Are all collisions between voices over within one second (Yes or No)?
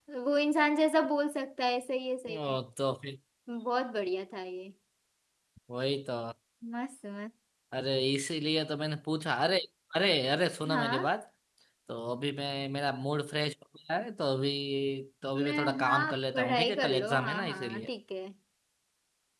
No